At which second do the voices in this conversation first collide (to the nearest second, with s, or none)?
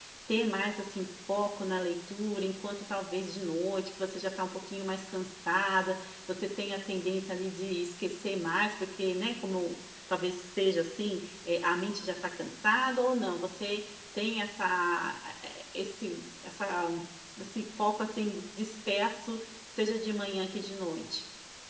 none